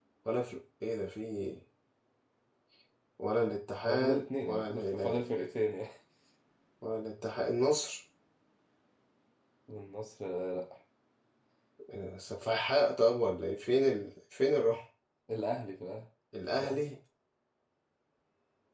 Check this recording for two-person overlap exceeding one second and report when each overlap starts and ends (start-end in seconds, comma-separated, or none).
3.9-5.2